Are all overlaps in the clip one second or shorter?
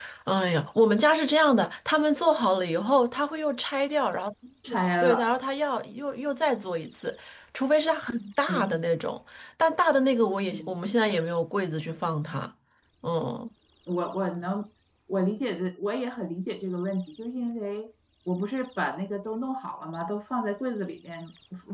Yes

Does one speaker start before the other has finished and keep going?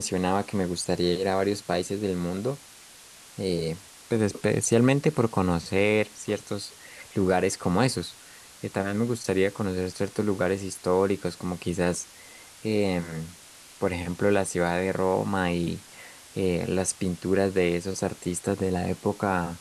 No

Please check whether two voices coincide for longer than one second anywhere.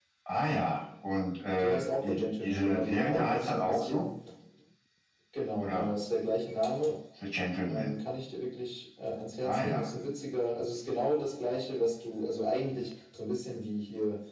Yes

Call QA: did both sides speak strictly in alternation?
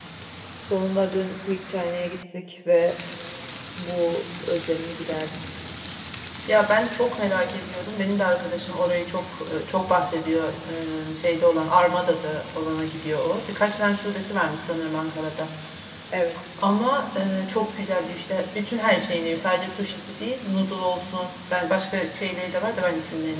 Yes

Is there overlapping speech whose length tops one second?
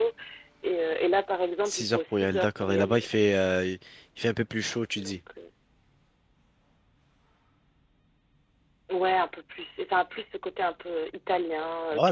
Yes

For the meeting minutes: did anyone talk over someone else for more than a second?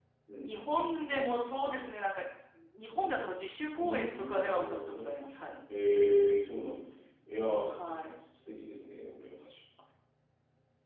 Yes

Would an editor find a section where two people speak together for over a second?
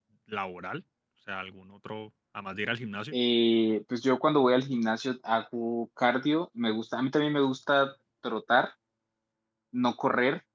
No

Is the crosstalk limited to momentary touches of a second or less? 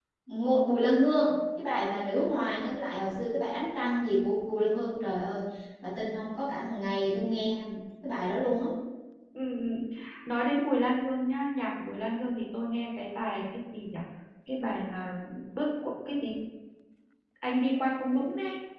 Yes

